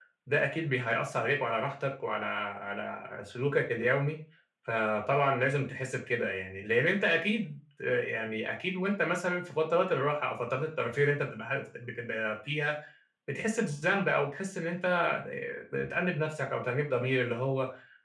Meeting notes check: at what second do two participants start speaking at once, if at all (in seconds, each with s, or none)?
none